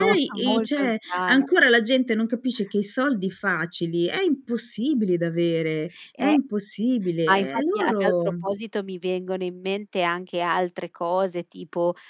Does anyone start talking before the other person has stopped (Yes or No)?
Yes